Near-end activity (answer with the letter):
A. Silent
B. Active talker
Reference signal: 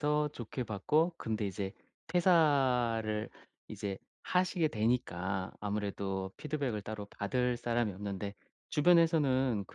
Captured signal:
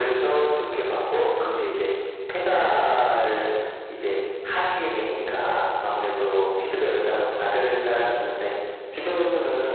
A